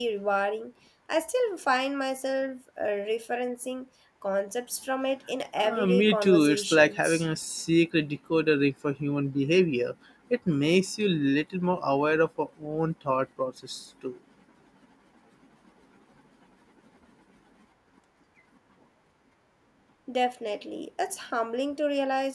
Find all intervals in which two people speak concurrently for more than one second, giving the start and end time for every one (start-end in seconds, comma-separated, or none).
5.6-7.2